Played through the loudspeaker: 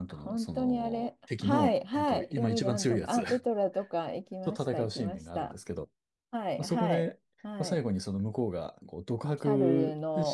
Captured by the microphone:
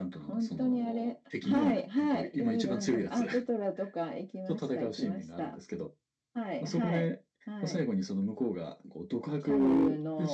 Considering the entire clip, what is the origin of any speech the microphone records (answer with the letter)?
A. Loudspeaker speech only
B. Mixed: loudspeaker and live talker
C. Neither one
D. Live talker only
A